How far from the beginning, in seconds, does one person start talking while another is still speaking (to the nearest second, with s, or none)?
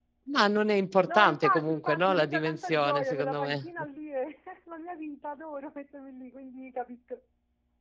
1 s